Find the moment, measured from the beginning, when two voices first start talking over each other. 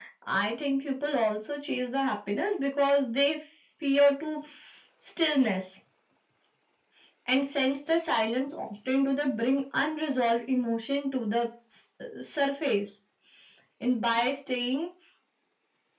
none

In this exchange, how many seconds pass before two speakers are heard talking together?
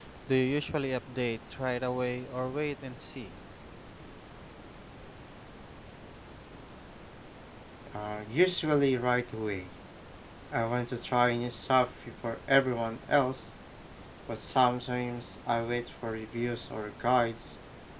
none

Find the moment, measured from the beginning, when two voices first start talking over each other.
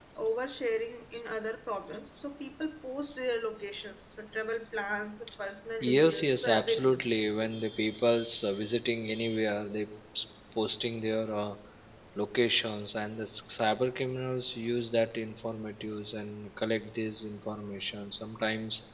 5.8 s

